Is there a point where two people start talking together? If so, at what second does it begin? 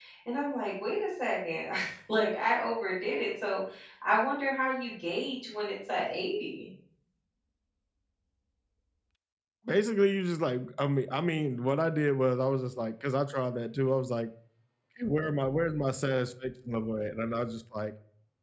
none

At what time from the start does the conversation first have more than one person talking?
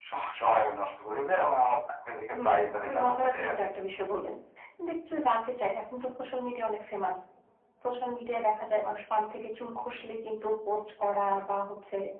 2.3 s

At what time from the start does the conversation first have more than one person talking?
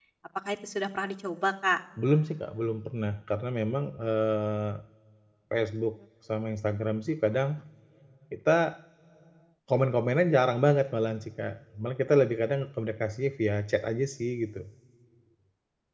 none

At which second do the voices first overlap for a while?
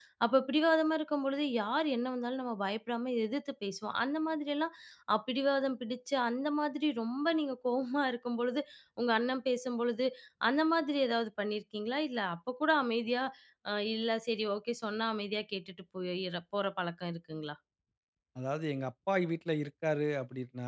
none

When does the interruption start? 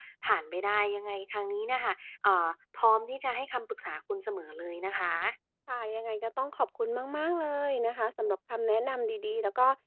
none

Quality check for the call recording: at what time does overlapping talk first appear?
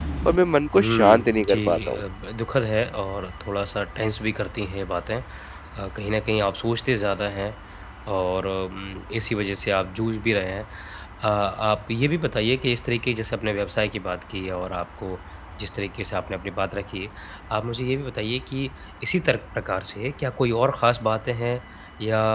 0.8 s

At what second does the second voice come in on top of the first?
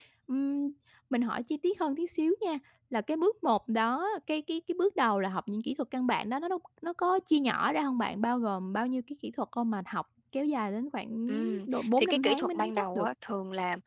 11.3 s

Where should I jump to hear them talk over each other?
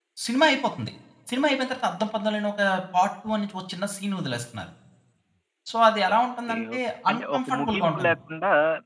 6.5 s

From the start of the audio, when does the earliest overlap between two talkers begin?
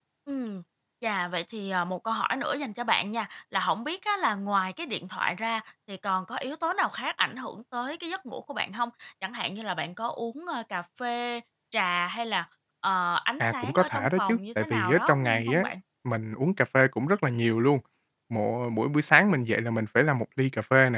13.4 s

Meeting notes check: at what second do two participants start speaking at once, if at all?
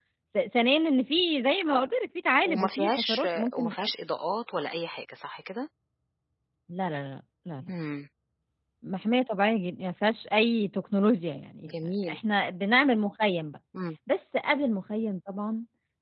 2.4 s

